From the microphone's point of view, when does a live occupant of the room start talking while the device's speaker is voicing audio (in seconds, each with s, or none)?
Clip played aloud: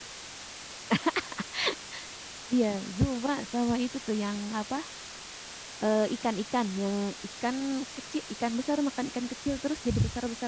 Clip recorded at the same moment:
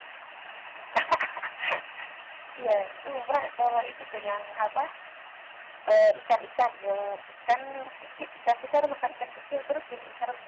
none